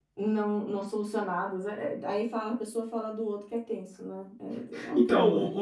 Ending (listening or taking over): taking over